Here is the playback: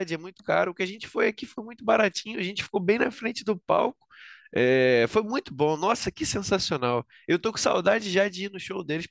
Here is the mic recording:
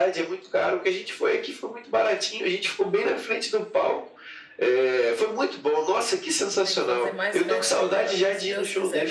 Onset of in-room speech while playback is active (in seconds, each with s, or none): 6.6 s